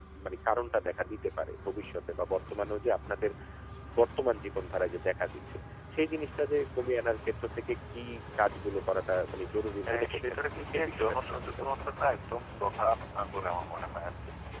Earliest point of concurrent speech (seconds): 9.8 s

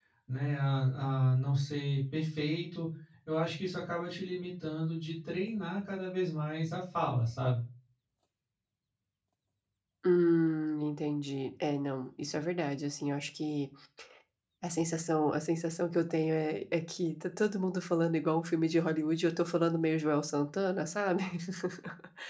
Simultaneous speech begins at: none

